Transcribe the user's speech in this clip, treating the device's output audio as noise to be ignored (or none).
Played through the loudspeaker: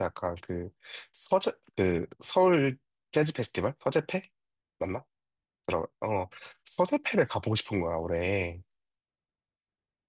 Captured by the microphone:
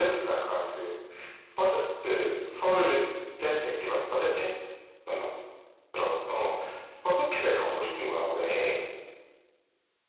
none